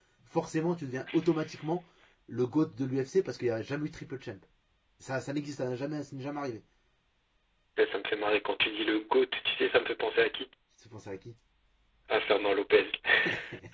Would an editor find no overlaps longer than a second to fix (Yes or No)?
Yes